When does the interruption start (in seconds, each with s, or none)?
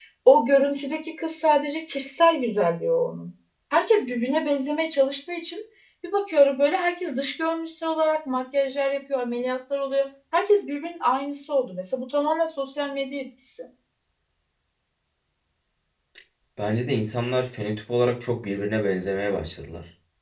none